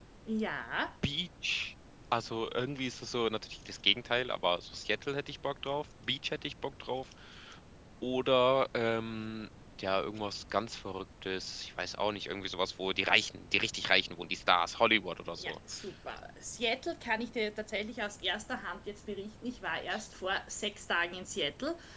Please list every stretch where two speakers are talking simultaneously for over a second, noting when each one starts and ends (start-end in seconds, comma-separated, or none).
none